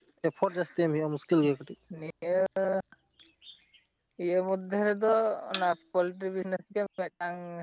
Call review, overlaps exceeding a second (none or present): none